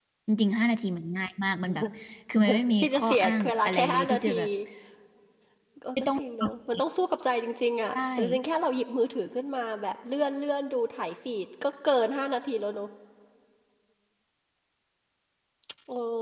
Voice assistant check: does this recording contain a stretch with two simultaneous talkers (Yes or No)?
Yes